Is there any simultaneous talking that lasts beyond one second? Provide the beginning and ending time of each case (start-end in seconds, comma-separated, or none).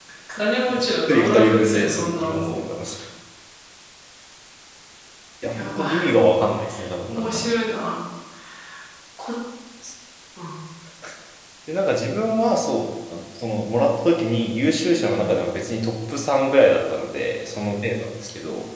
1.1-2.6